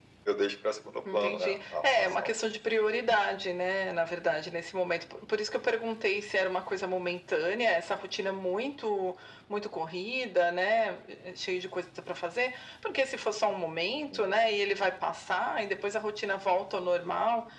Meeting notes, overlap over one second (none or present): present